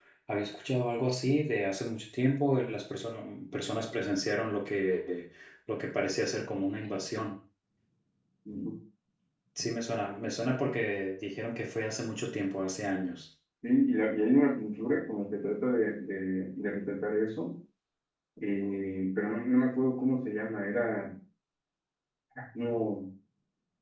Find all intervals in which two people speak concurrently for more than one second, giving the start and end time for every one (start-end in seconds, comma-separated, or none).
none